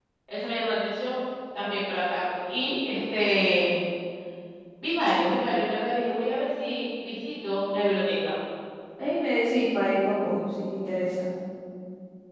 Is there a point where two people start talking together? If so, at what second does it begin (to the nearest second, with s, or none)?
none